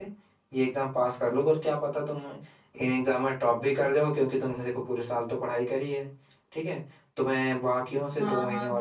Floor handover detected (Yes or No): Yes